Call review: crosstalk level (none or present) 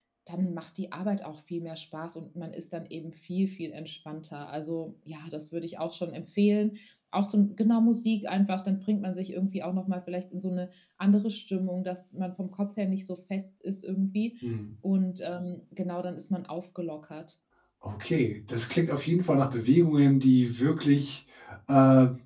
none